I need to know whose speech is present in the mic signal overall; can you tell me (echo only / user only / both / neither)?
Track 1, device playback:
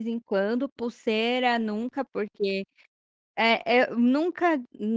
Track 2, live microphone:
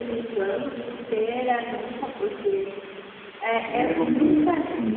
both